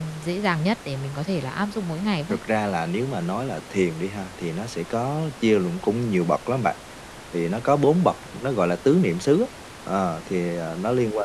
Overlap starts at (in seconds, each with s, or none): none